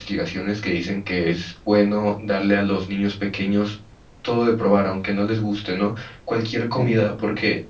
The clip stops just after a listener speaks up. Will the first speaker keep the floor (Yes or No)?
Yes